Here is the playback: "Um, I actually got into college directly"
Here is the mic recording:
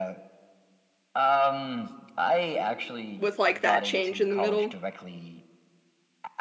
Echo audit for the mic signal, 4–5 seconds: both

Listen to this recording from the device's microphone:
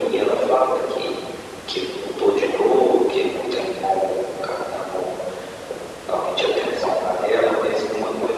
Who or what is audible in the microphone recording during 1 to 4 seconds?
echo only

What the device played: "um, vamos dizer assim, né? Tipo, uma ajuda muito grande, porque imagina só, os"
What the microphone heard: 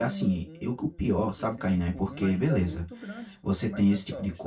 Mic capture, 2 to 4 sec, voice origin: both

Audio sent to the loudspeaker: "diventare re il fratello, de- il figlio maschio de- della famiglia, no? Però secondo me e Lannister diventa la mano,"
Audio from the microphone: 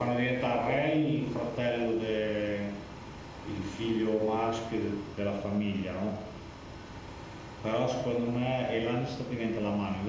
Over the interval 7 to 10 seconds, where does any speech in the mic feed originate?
echo only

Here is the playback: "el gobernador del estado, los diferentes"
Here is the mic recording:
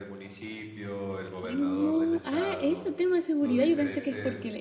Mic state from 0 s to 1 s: echo only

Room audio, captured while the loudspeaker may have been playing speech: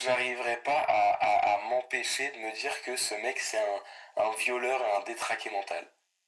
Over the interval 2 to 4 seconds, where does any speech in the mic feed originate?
echo only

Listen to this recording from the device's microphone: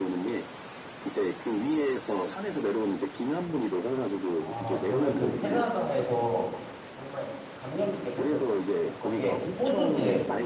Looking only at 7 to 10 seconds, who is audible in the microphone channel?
both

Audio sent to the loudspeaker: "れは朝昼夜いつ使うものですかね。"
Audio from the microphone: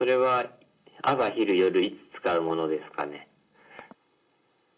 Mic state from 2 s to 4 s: echo only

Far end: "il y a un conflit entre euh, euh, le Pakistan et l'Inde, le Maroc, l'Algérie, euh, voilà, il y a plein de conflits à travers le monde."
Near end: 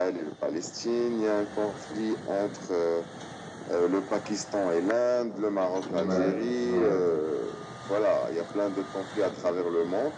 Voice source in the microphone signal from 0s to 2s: echo only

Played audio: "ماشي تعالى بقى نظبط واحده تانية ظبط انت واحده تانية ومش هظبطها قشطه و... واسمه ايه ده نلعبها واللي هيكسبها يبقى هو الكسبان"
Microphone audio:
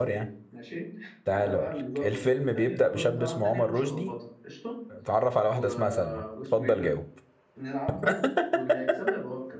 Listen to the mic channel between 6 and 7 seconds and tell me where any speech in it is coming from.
both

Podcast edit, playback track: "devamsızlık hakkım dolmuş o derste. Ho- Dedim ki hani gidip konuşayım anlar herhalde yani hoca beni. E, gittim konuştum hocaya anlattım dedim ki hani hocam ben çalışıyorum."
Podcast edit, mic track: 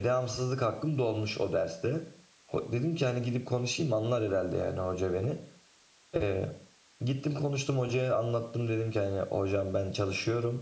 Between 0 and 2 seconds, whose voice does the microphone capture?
echo only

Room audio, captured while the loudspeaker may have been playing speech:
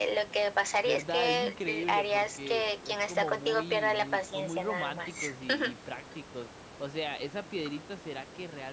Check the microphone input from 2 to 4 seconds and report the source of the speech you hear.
both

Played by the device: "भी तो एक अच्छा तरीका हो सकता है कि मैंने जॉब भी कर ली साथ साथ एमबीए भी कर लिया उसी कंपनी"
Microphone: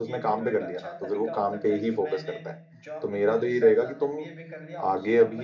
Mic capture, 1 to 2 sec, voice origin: both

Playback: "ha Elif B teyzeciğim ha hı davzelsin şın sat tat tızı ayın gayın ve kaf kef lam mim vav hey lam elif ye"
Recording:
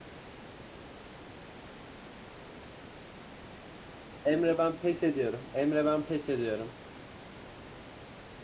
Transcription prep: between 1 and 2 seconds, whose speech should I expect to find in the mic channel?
neither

